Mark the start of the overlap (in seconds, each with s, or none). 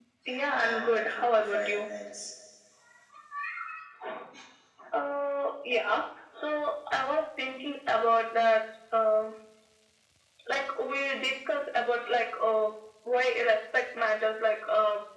0.5 s